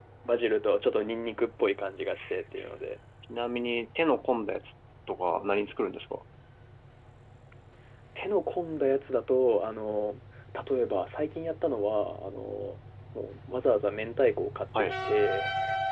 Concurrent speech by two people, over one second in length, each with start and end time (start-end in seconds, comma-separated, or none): none